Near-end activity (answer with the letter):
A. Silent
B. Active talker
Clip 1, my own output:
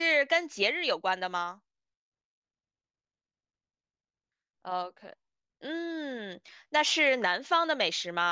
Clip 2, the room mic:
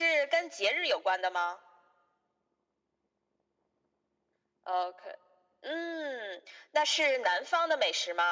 A